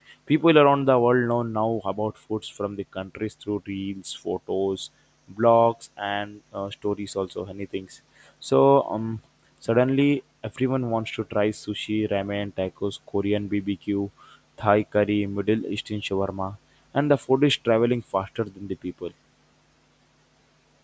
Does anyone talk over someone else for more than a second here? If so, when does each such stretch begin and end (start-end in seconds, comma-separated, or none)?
none